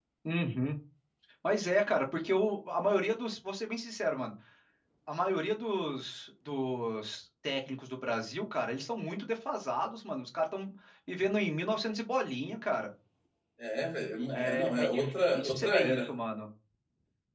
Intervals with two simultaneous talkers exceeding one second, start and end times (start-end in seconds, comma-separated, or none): 14.3-16.0